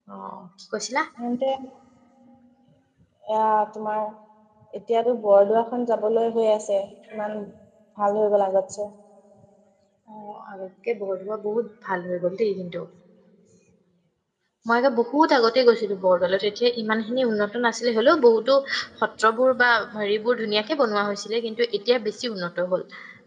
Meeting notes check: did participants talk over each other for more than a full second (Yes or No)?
No